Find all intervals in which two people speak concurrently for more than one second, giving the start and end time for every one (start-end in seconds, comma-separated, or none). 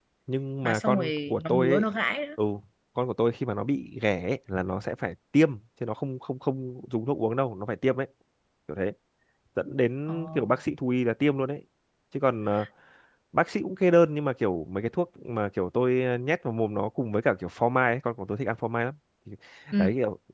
0.6-1.8